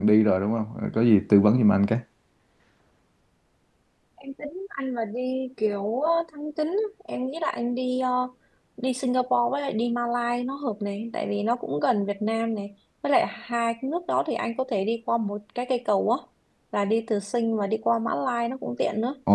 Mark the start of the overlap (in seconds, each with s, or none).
none